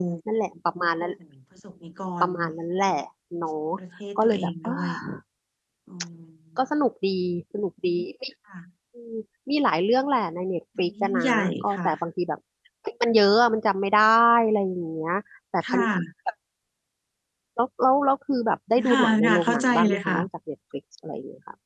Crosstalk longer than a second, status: present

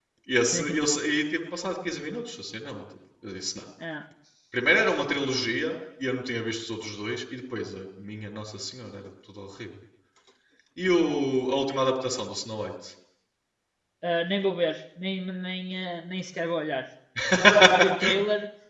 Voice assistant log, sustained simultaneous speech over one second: none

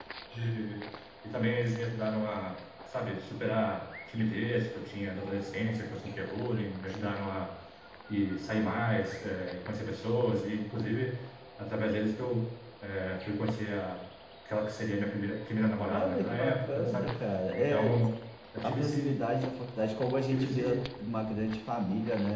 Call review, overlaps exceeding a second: present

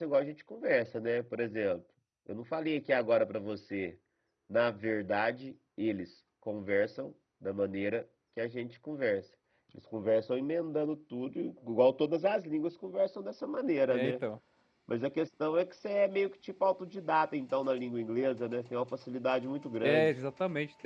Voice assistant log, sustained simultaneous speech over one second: none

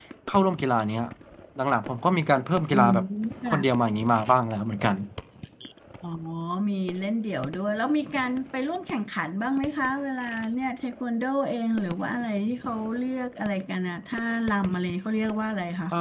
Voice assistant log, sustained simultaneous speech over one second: none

